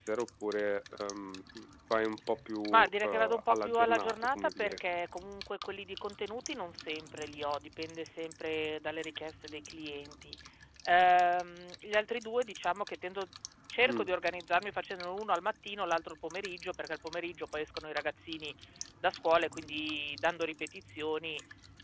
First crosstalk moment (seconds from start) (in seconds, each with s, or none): 2.7 s